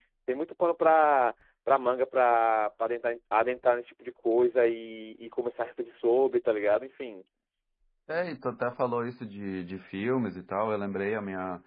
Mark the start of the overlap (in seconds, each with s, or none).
none